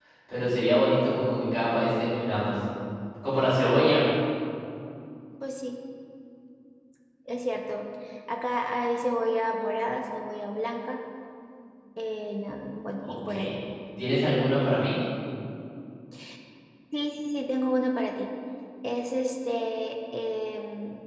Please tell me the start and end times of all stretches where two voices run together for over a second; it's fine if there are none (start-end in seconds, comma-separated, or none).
none